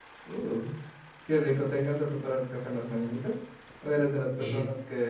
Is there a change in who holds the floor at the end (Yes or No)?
No